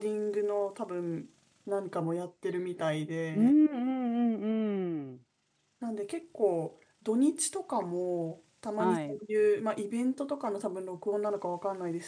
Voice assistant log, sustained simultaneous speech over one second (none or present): none